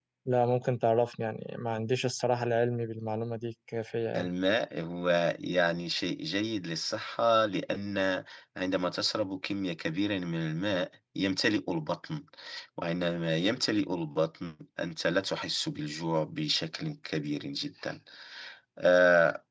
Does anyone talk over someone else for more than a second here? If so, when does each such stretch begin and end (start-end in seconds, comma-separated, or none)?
none